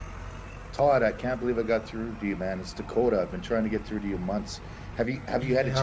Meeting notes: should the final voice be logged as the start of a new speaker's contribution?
Yes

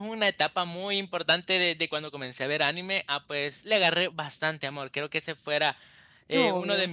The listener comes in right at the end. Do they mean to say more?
No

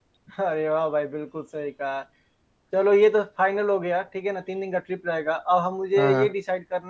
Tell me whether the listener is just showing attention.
Yes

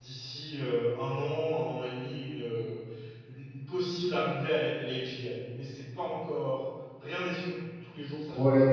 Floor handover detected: Yes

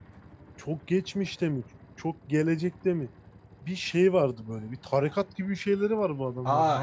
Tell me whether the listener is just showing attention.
No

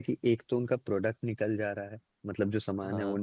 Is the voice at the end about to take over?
No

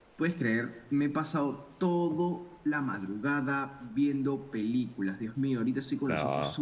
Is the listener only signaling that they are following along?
Yes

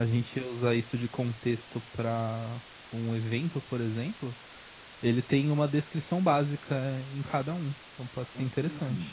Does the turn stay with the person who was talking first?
No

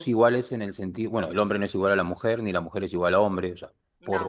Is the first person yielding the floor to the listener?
No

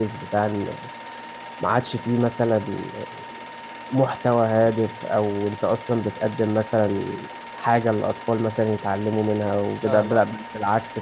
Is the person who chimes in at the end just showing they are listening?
Yes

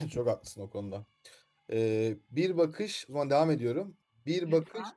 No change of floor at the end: Yes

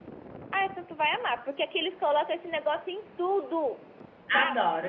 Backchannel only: No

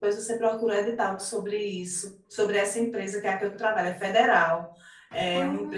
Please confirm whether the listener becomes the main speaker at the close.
No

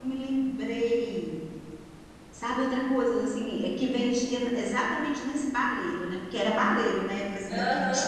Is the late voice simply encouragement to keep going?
No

